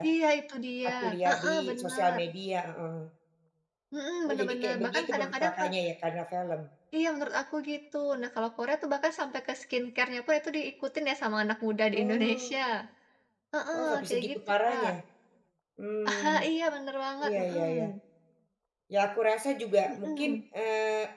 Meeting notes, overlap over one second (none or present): present